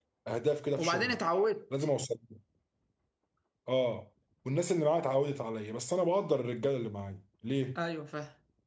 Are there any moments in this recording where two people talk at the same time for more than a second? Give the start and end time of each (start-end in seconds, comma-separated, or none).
none